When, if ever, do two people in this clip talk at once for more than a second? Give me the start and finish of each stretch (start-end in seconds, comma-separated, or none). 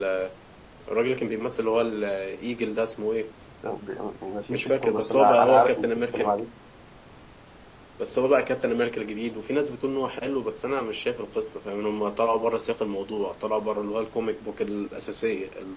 4.5-6.4